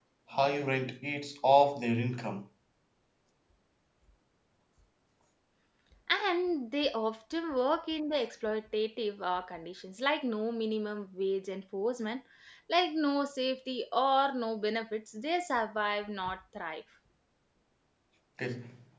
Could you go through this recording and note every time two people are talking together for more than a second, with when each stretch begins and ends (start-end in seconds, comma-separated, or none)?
none